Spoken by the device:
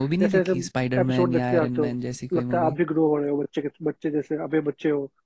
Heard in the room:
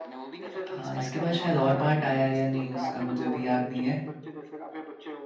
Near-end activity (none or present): present